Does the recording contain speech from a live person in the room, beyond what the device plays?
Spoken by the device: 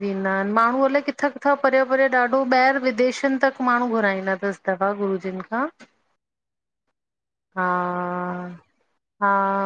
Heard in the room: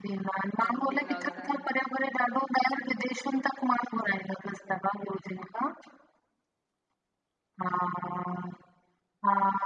Yes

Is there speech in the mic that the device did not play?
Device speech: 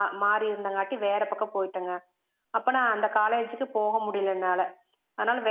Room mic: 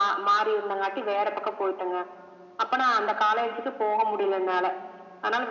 No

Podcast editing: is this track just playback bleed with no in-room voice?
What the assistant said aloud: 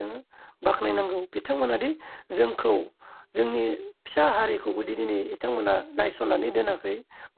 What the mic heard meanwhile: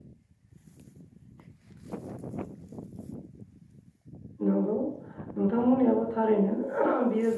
No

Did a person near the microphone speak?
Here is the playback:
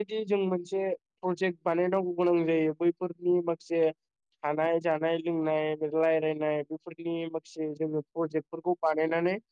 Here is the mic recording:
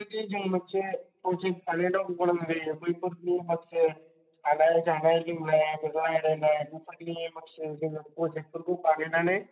No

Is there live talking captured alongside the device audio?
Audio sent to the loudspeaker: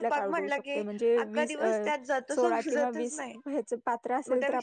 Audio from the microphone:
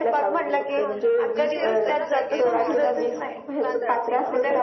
Yes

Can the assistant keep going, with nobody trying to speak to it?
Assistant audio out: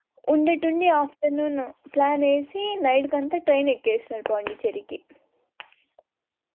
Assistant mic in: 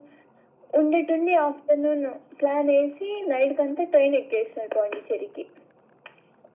Yes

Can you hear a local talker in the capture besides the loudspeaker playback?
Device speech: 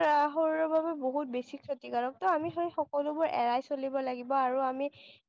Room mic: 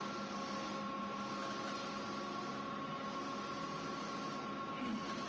No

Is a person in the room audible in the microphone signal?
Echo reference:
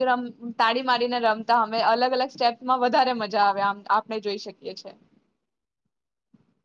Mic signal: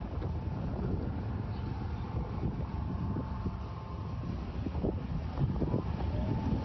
No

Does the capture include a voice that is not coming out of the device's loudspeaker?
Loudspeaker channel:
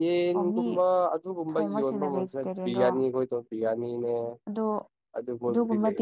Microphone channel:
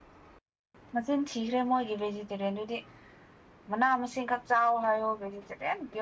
Yes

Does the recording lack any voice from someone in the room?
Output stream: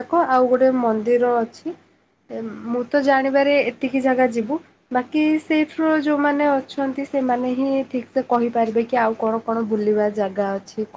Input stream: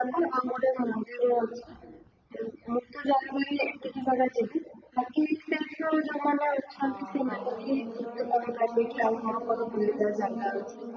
No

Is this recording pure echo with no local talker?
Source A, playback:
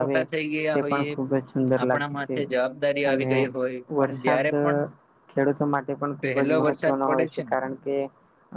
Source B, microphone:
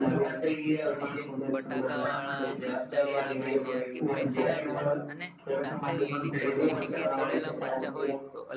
No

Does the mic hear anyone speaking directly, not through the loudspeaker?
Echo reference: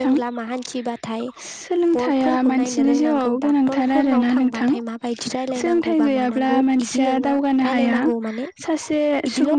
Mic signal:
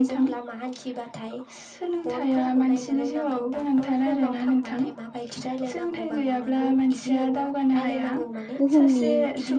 Yes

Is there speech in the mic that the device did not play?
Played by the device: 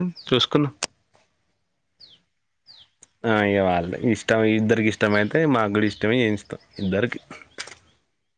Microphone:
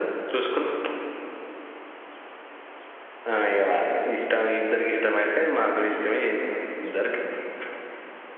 No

